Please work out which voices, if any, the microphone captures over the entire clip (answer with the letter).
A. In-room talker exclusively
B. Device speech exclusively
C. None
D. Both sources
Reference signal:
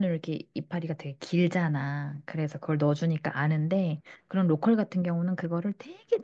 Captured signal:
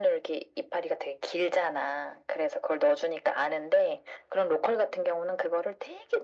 B